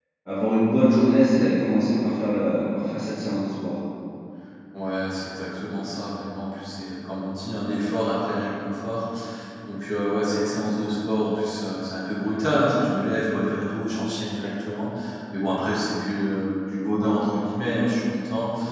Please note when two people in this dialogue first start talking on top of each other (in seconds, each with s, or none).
none